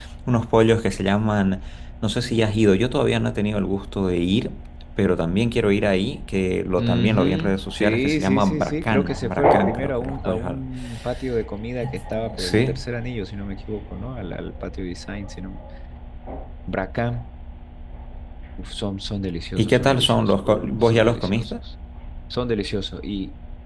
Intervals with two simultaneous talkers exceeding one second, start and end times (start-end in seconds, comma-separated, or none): 6.8-10.6, 19.6-21.5